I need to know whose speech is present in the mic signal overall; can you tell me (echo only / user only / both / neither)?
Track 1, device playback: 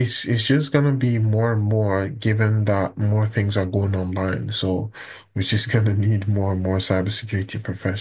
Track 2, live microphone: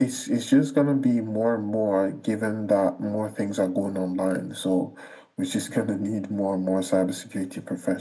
echo only